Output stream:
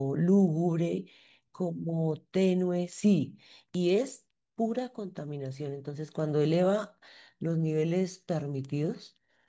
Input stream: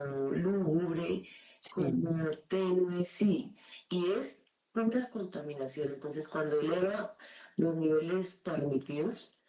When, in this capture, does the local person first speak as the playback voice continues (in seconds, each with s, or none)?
1.6 s